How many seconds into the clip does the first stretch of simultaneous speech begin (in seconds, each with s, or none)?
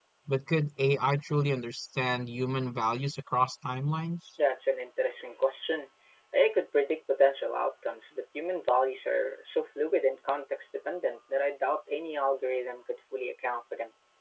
none